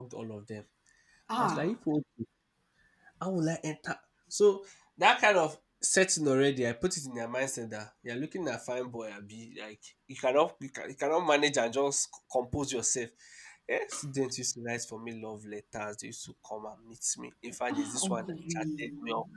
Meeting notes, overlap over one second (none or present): present